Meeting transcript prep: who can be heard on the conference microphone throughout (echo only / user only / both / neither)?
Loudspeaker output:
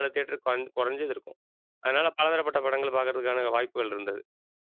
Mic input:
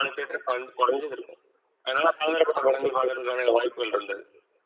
echo only